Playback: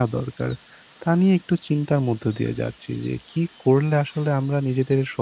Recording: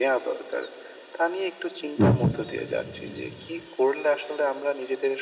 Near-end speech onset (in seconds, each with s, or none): 2.0 s